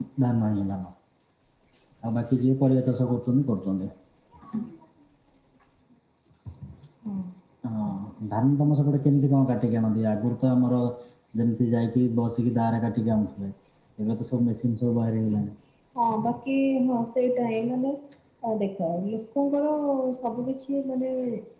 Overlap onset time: none

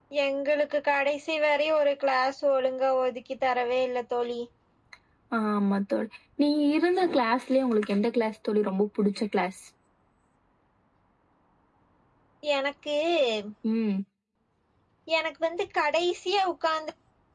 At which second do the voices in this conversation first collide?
none

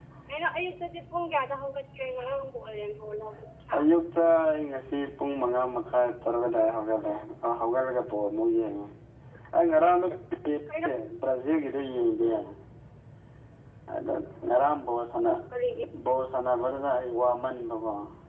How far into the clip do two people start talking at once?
none

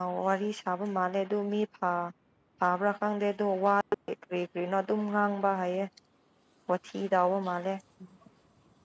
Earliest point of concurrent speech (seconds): none

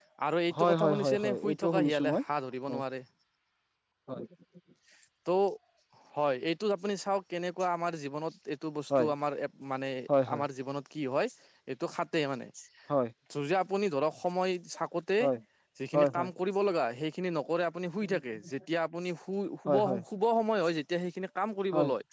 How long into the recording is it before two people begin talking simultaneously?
0.6 s

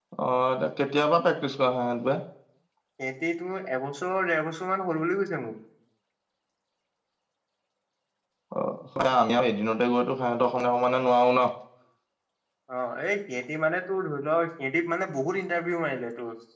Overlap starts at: none

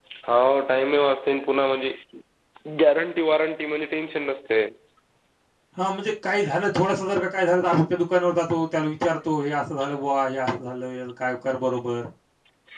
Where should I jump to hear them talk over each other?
none

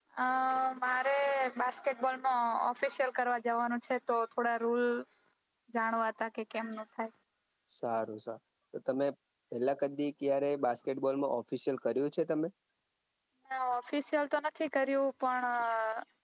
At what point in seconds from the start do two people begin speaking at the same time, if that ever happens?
none

